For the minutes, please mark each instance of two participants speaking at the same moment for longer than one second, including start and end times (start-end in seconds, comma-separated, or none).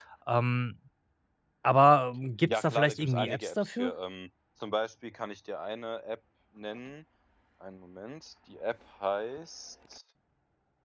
2.5-3.9